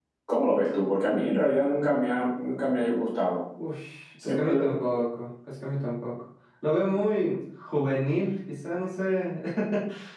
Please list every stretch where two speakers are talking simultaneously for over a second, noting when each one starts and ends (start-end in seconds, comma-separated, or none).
none